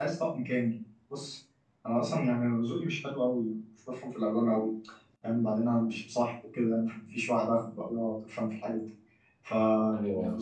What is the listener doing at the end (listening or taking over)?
listening